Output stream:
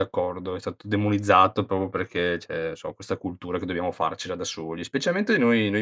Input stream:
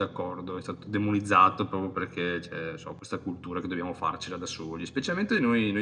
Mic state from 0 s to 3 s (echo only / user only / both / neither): echo only